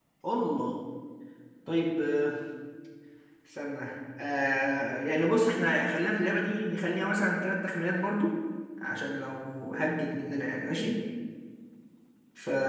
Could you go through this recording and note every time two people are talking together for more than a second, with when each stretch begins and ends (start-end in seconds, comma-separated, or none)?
none